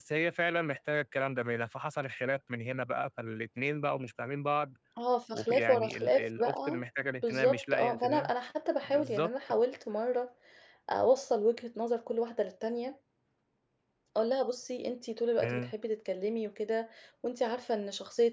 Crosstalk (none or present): present